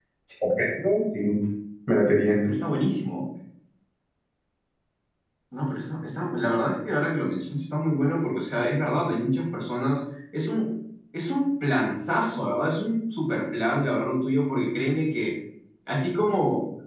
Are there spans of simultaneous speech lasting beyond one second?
No

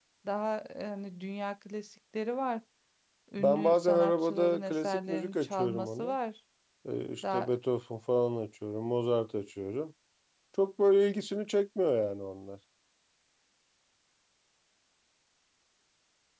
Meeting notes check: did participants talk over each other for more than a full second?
Yes, from 3.4 s

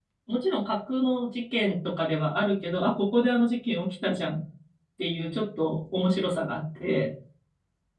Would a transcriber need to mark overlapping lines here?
No

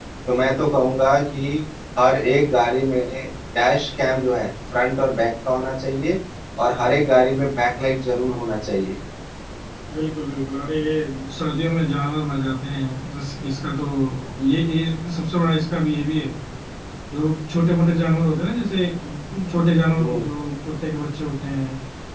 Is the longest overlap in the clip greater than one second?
No

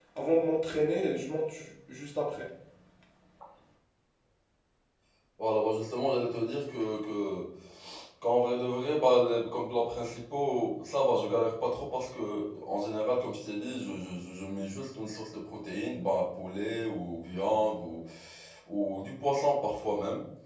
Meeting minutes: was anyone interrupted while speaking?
No

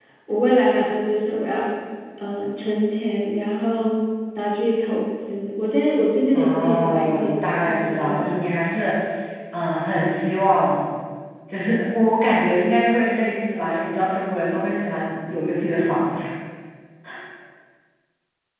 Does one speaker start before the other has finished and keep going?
Yes, from 6.3 s

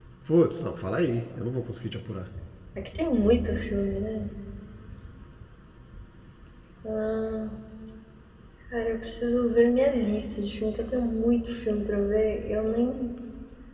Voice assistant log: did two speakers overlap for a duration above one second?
No

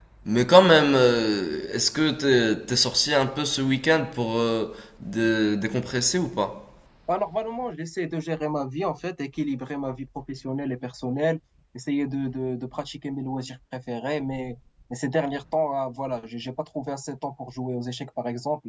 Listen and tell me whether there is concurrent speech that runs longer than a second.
No

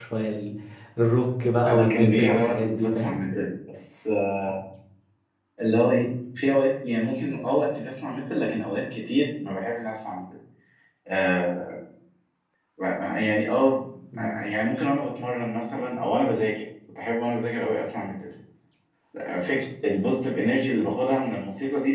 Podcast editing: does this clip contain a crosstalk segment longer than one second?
Yes, from 1.7 s

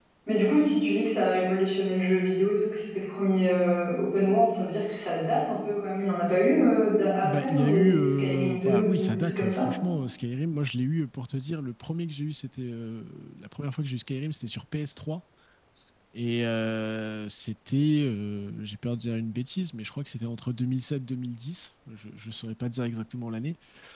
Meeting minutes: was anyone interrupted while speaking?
Yes, from 7.2 s

